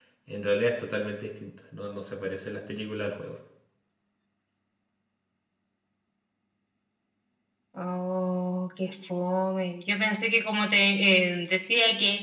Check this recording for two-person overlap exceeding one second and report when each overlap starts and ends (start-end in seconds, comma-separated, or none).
none